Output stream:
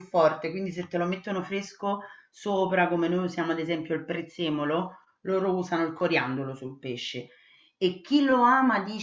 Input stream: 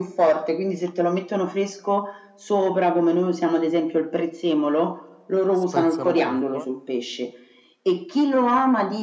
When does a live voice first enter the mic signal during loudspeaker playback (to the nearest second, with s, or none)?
6 s